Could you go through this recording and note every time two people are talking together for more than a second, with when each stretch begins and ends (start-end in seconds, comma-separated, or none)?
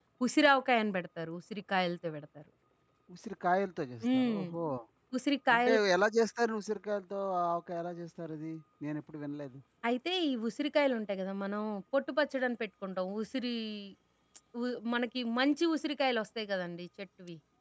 none